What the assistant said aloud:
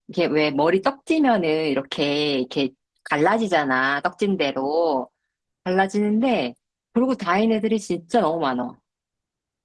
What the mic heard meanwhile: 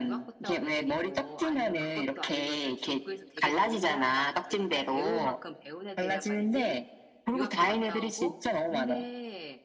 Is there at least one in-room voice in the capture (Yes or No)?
Yes